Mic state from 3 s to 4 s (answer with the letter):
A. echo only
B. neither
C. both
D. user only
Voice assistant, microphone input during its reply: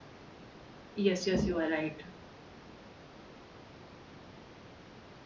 B